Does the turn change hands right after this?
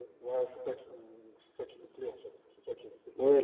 Yes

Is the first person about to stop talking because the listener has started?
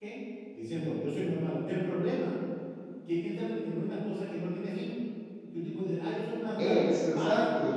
No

